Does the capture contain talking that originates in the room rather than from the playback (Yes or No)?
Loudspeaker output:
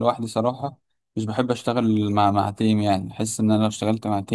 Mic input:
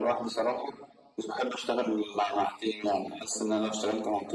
No